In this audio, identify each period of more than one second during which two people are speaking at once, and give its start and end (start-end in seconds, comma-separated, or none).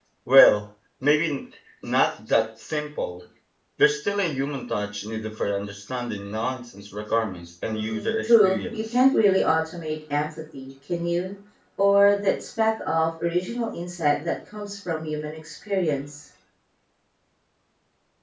7.7-9.0